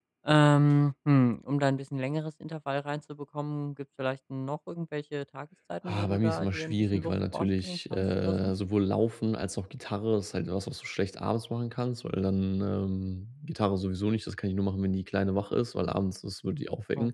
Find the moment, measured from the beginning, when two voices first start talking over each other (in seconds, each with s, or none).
5.9 s